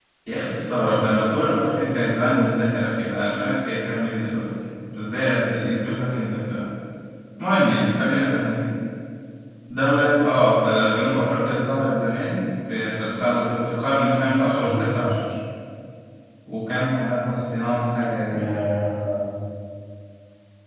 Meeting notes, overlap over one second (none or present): none